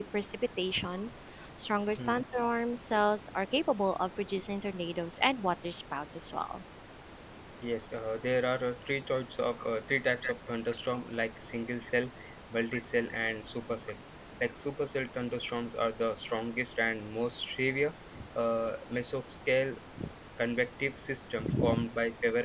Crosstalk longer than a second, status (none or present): none